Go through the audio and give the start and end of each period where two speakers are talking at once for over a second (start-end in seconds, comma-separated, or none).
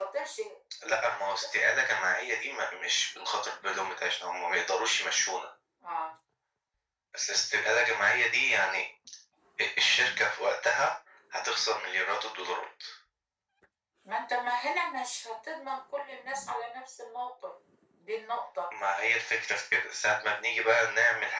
none